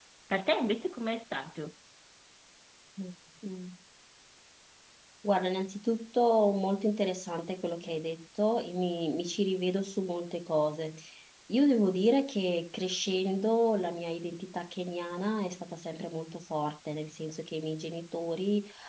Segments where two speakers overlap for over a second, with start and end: none

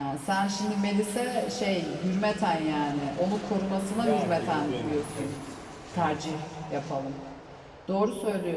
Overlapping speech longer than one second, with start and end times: 3.9-5.4

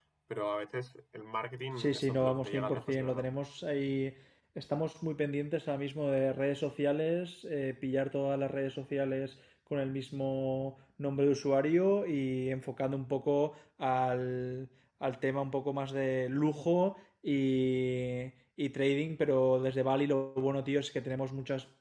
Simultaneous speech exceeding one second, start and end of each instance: 1.8-3.2

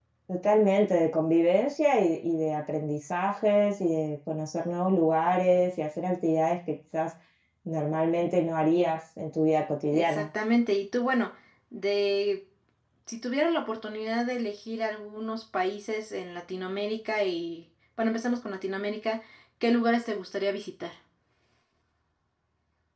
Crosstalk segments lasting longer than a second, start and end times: none

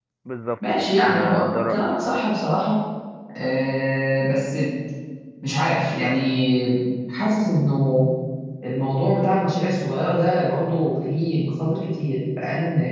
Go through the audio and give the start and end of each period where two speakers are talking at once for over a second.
0.7-2.2

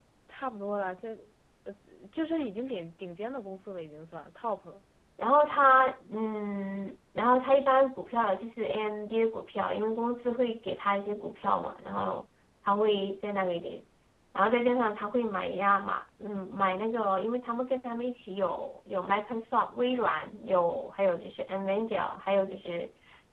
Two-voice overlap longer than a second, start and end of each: none

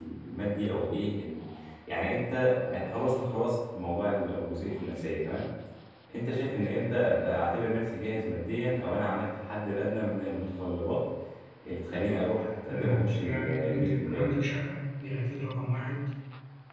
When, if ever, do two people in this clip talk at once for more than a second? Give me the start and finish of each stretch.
12.7-14.3

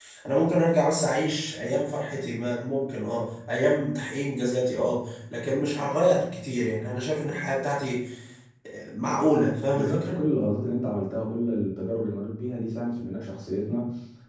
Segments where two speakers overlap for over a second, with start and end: none

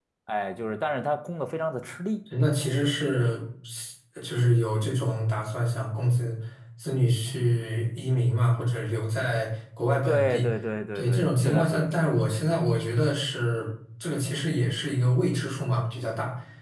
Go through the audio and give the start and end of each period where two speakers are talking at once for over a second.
10.9-12.3

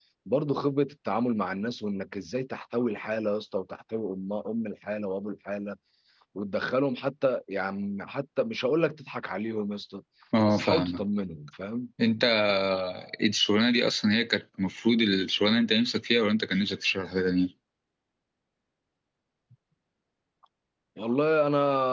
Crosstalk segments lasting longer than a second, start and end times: none

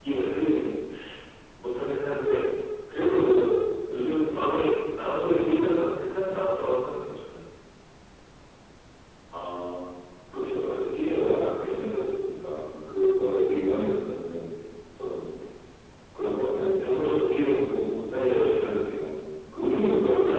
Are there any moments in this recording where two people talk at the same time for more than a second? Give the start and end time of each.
none

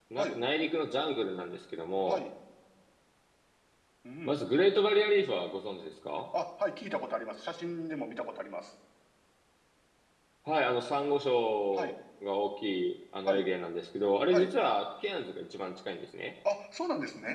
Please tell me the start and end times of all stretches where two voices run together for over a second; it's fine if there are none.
none

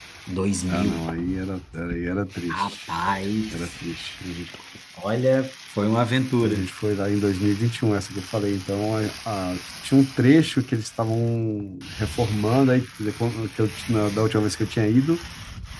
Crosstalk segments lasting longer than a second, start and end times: none

